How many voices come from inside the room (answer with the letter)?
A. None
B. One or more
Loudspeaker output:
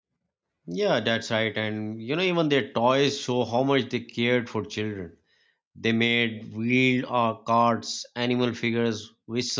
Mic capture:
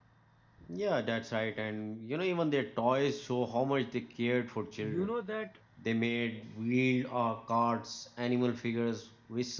B